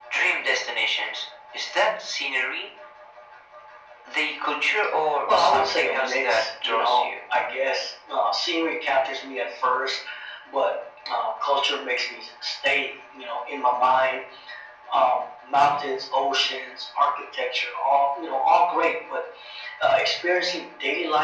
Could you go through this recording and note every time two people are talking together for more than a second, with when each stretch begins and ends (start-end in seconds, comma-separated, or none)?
5.4-7.1